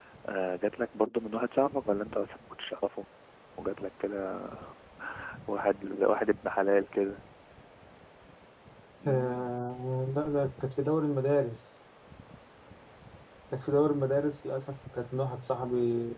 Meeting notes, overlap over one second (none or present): none